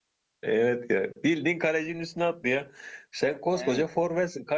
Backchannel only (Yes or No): Yes